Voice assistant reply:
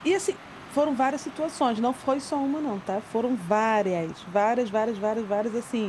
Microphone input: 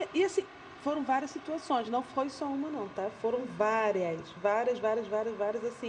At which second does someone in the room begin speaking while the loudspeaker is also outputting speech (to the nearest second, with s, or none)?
none